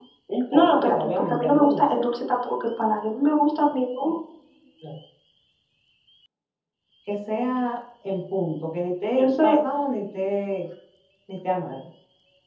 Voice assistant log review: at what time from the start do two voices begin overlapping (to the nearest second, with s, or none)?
1 s